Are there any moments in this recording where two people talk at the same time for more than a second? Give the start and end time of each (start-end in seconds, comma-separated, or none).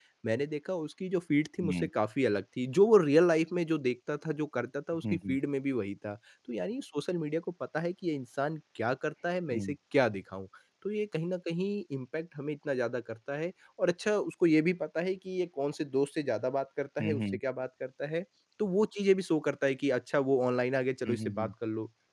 none